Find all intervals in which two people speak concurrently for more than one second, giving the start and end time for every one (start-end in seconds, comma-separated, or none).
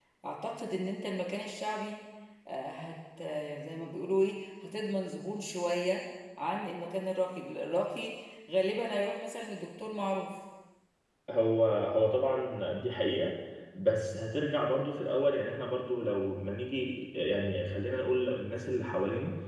none